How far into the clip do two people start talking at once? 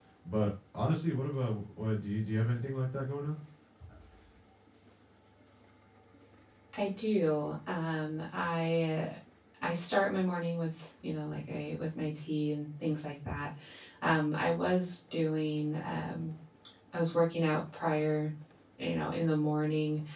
none

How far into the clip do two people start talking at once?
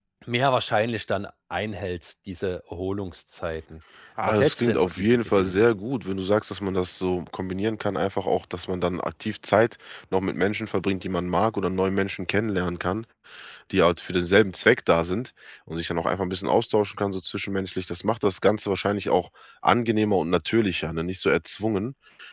4.3 s

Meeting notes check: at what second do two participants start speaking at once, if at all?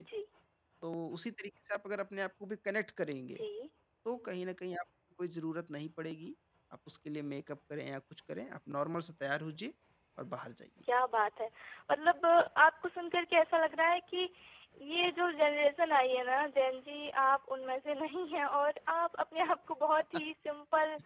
none

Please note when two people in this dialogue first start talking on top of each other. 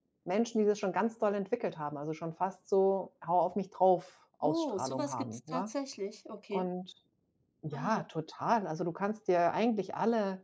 4.4 s

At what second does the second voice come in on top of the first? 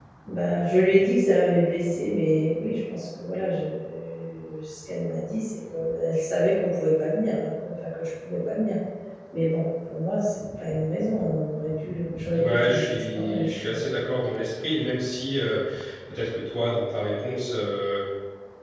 12.3 s

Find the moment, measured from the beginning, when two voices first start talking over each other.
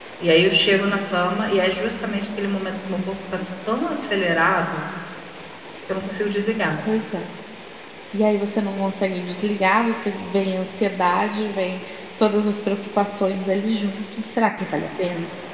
none

